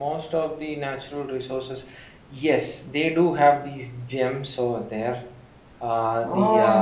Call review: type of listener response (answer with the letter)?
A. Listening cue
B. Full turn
B